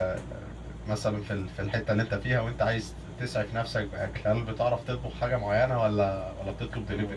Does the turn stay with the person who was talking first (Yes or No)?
No